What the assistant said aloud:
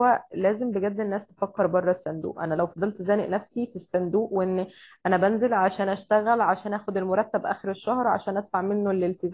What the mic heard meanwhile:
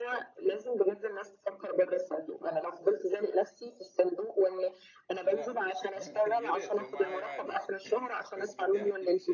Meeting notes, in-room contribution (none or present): present